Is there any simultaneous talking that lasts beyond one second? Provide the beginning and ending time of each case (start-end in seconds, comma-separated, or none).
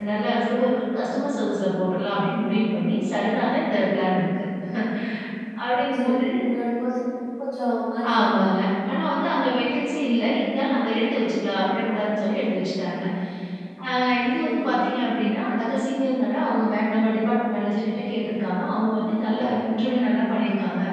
none